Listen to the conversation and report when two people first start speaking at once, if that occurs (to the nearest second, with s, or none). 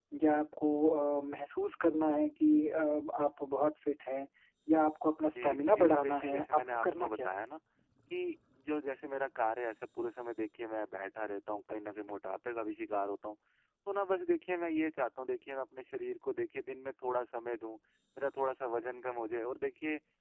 5 s